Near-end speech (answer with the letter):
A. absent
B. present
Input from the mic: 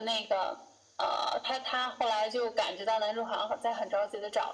A